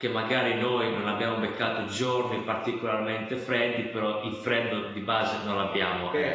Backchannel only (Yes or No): No